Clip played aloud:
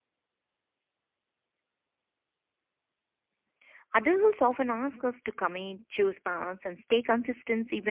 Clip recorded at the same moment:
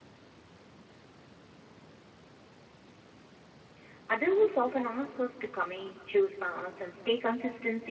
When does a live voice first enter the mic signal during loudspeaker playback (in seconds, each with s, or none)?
none